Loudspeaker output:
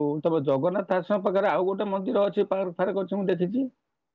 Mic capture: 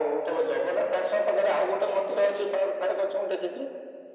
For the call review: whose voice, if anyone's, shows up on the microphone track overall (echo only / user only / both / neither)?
echo only